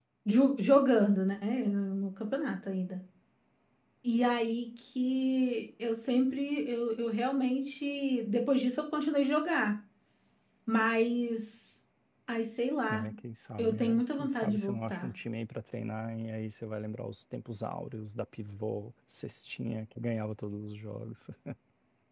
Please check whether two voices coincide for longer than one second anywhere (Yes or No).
Yes